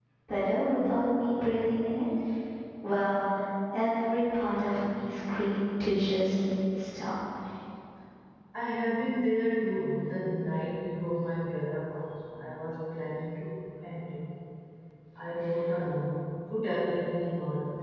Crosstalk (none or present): none